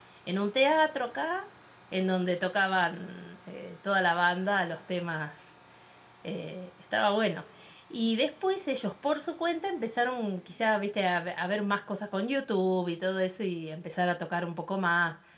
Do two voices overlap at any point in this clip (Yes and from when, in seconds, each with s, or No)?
No